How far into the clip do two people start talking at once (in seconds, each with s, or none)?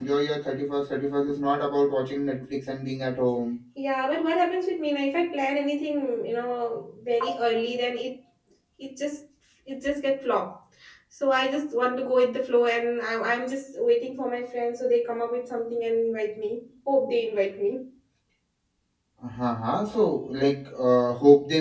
none